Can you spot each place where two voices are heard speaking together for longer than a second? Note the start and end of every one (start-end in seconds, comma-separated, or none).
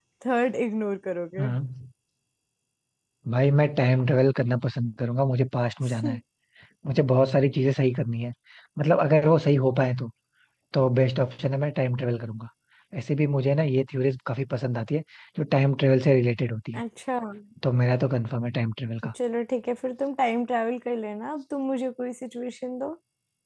none